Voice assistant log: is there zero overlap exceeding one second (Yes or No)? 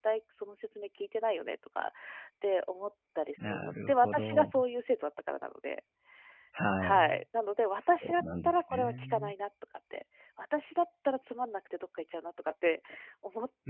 No